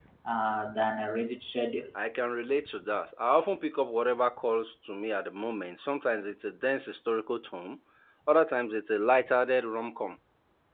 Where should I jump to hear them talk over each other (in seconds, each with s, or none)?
none